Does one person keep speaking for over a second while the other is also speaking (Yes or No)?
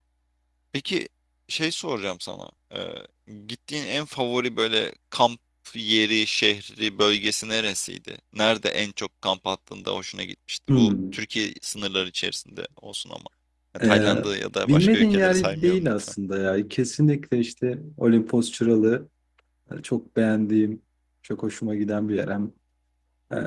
Yes